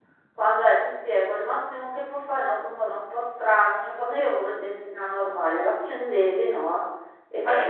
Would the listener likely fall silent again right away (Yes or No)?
Yes